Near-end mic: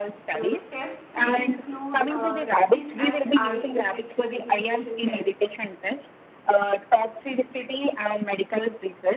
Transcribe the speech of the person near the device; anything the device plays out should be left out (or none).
Mm, tests may include uh, skin and eye irritation irritation tests